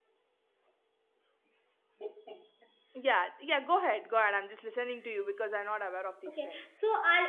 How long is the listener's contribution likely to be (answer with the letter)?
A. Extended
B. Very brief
A